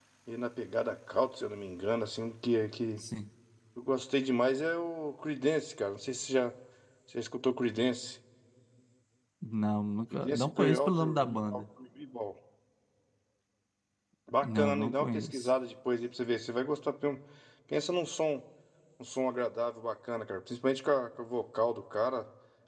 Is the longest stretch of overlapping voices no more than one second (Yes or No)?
No